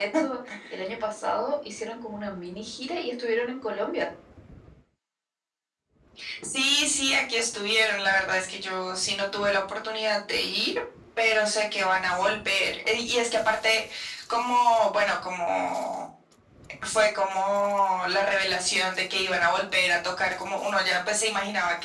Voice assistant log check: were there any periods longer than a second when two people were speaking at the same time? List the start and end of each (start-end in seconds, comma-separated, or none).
none